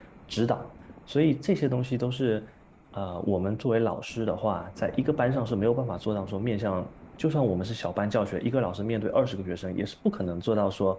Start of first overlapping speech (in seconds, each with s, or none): none